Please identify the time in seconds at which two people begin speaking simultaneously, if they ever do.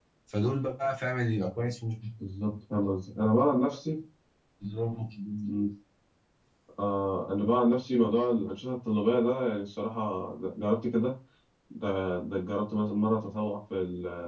none

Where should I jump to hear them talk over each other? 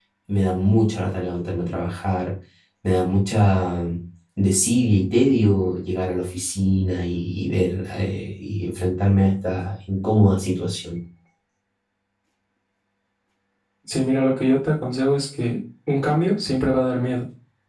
none

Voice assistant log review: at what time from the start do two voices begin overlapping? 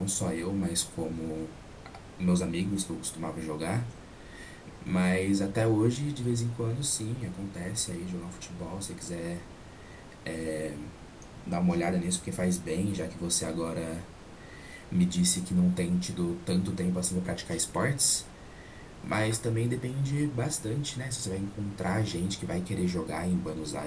none

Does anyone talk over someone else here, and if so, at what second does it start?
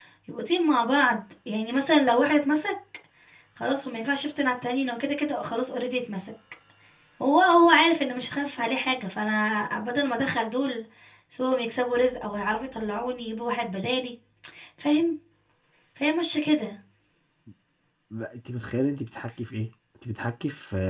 none

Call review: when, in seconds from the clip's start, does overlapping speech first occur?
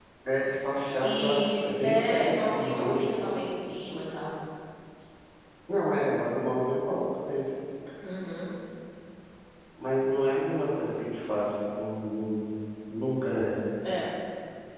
1.0 s

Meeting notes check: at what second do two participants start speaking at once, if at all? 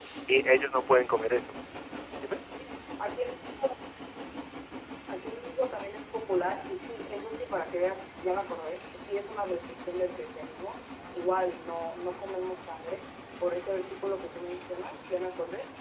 none

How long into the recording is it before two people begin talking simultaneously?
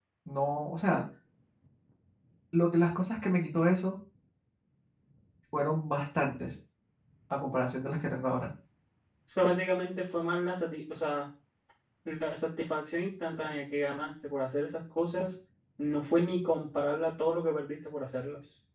none

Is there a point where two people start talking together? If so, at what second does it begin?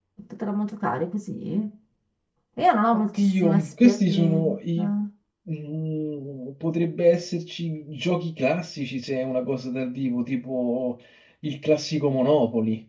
3.2 s

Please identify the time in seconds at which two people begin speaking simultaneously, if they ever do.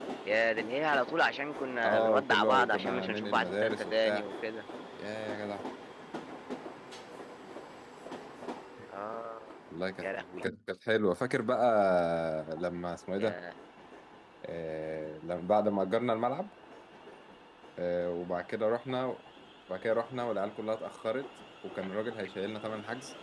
1.8 s

